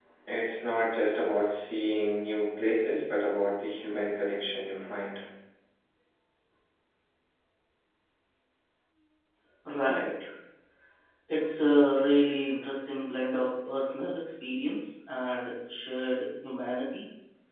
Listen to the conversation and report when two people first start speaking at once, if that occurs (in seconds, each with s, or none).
none